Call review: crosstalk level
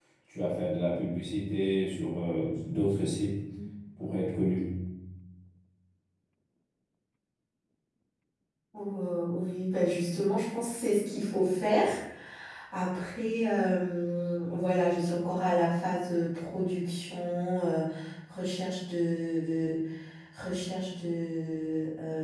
none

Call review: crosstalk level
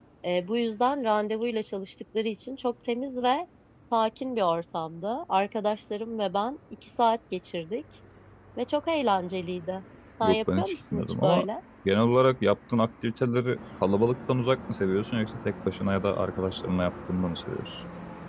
present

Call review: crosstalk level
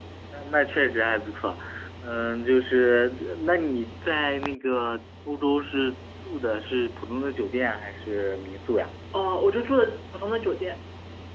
none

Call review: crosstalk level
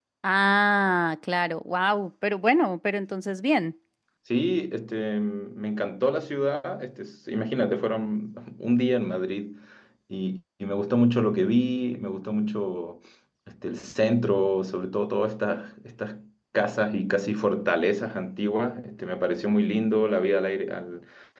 none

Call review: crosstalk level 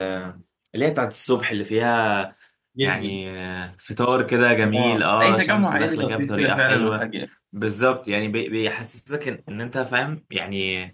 present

